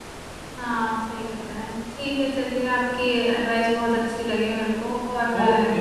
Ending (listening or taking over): taking over